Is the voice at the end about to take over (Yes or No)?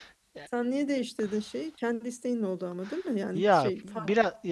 Yes